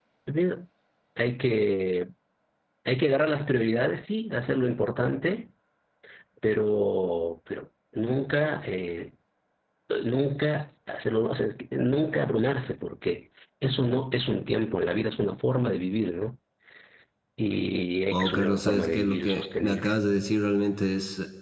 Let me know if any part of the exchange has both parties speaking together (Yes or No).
Yes